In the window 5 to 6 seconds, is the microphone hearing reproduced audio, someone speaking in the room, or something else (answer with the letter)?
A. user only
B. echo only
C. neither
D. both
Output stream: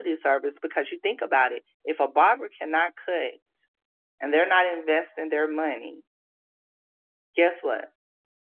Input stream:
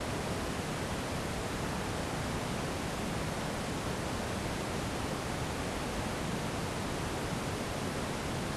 C